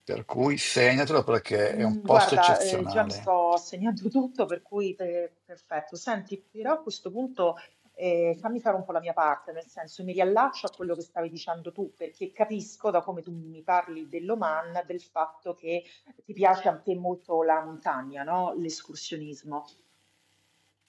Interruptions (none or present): present